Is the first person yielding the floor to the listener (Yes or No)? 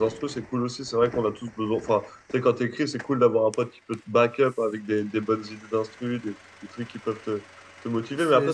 No